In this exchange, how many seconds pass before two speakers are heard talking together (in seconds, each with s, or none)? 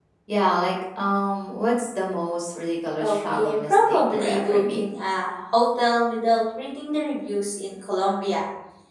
3.0 s